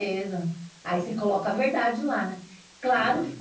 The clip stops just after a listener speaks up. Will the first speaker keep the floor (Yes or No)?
Yes